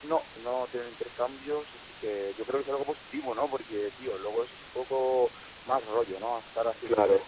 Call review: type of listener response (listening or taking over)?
listening